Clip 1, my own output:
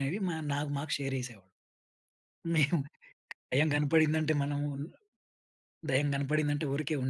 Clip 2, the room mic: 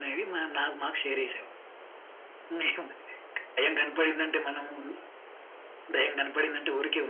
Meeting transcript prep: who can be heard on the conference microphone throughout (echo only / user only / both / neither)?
echo only